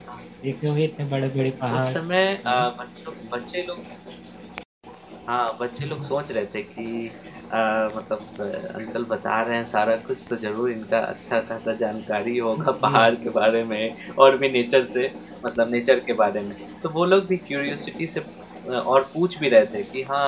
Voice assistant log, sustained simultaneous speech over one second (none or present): none